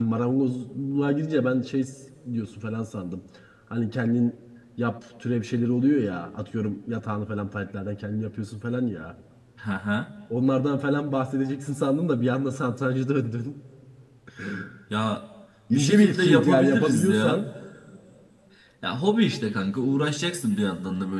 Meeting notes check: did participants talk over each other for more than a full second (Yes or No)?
Yes